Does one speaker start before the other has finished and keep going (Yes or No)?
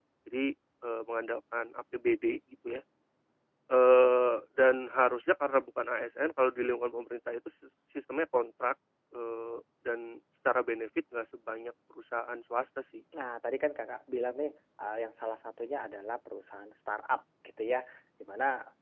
No